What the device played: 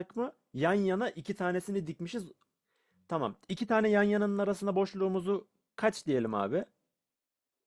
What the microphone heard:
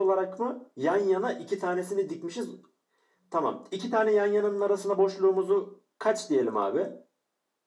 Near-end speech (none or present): none